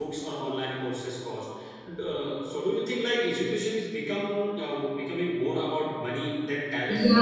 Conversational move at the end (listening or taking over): taking over